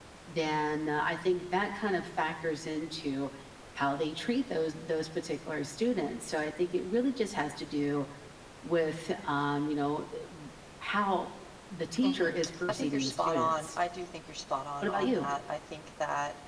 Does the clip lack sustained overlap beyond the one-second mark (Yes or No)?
No